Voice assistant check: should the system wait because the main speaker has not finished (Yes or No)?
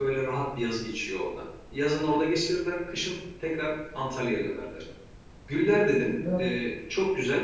Yes